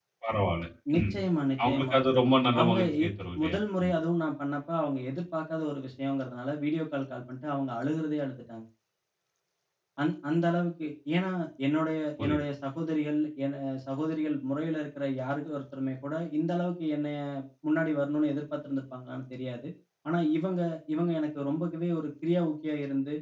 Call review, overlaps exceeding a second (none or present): none